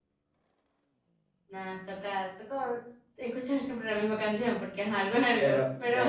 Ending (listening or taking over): taking over